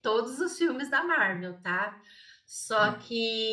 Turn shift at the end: No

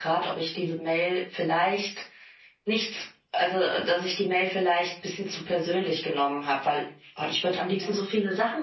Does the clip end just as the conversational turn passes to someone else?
No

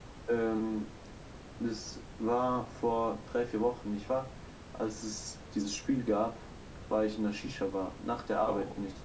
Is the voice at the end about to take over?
No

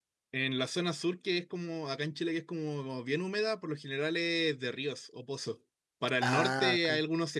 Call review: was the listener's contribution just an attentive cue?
Yes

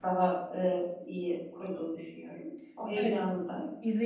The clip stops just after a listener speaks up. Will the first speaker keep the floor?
No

